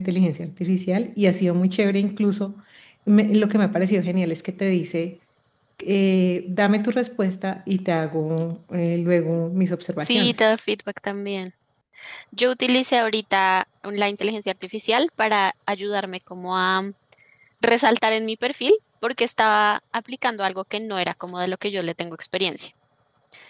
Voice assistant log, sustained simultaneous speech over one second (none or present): none